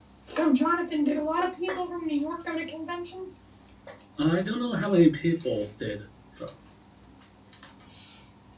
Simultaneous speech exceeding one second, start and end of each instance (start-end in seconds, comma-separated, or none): none